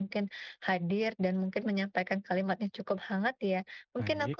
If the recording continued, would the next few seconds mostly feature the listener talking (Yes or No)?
No